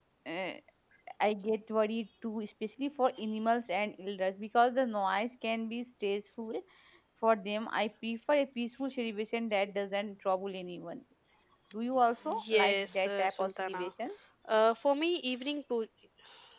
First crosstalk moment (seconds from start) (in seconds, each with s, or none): 12.5 s